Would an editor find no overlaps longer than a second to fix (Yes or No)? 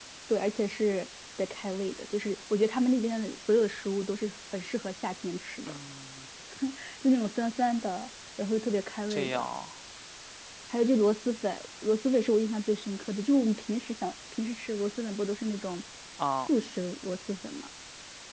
Yes